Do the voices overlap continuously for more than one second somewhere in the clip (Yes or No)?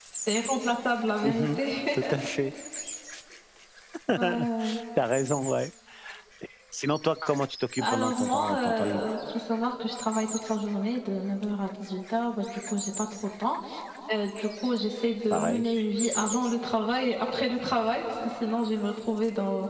Yes